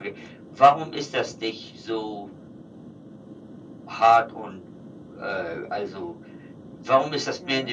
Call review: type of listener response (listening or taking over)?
listening